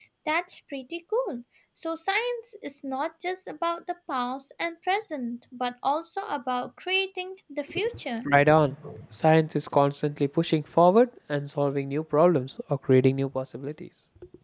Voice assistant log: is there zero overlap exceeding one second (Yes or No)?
Yes